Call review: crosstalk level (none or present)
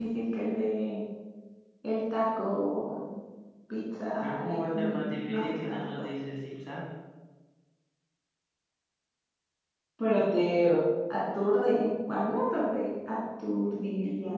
present